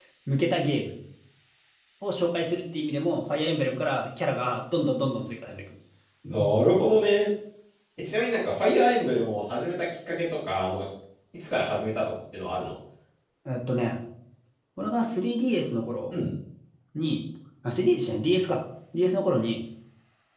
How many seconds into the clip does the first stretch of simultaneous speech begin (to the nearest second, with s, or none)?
none